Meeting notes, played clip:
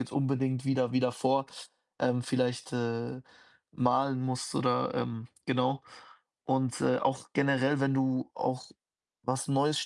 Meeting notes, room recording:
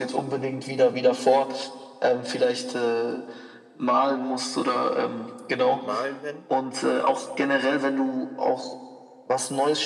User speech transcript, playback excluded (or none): Malen nennen.